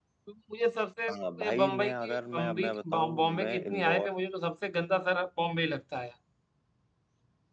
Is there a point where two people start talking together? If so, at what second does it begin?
1.4 s

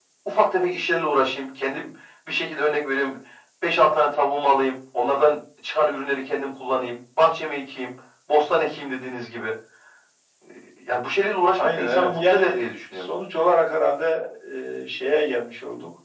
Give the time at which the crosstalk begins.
11.6 s

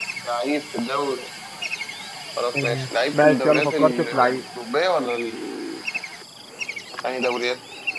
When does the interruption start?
2.6 s

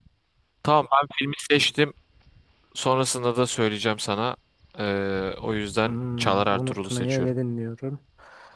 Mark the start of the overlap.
5.8 s

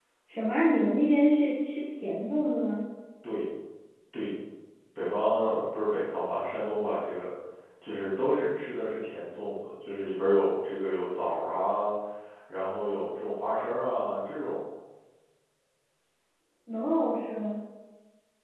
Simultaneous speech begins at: none

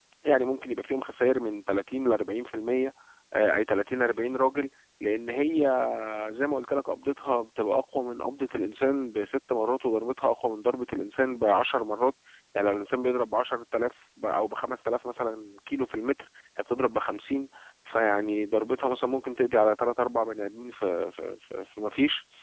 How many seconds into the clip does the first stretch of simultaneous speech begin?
none

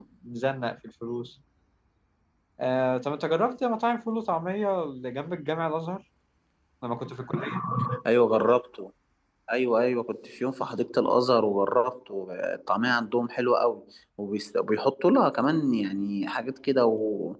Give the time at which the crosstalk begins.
none

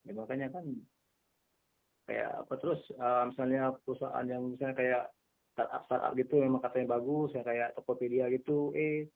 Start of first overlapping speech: none

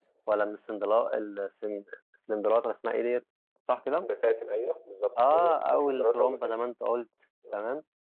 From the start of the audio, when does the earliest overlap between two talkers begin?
5.2 s

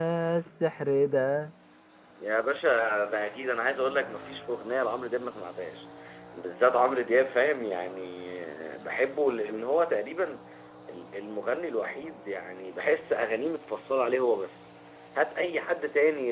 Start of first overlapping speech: none

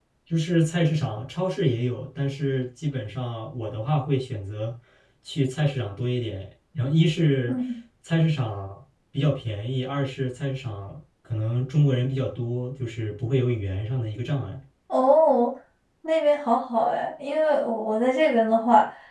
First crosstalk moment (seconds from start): none

